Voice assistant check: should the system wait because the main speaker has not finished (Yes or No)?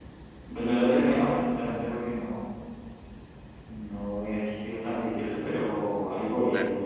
Yes